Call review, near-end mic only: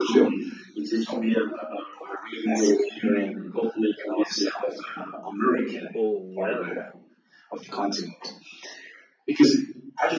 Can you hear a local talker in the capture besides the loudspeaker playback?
Yes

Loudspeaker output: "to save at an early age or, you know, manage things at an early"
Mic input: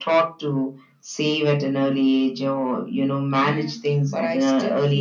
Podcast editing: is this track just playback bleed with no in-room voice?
No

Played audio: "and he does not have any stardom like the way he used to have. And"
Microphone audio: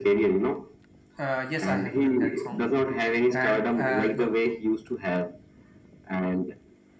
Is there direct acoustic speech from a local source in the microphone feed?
Yes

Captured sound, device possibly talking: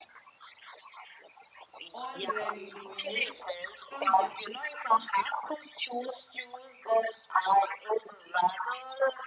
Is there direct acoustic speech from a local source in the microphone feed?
Yes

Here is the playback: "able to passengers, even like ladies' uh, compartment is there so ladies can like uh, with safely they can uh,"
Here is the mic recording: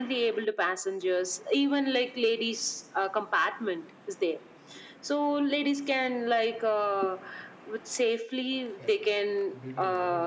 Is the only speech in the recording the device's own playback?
No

